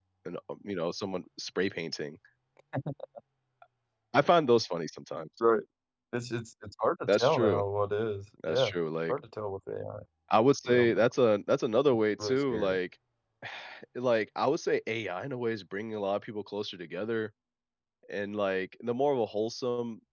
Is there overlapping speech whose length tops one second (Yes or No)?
No